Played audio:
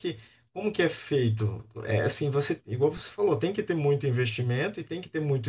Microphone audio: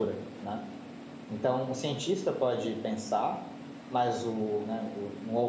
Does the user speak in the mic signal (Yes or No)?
Yes